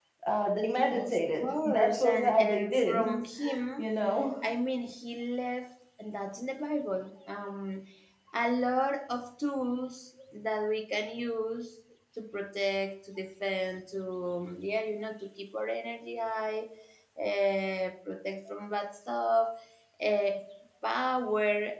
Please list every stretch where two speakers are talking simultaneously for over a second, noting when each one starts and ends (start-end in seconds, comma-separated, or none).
0.9-3.1